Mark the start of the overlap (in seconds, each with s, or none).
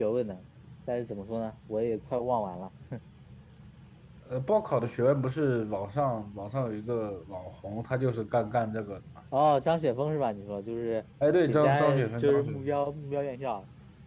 11.5 s